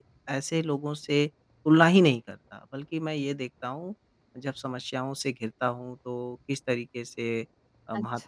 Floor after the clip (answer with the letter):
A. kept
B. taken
A